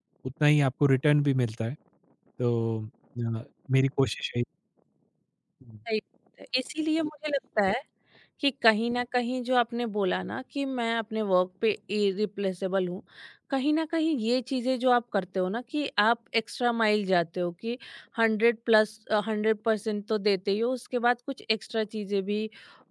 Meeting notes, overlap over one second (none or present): none